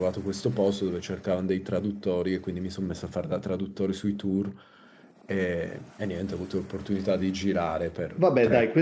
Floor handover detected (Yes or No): Yes